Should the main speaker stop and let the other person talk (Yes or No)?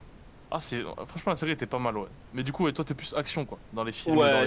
Yes